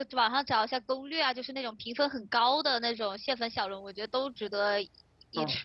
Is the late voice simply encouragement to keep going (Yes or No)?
No